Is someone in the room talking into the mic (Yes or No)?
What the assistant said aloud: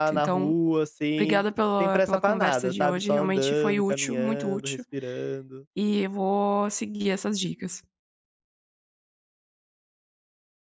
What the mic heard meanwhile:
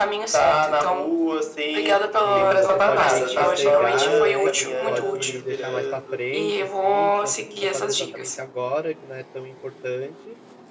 Yes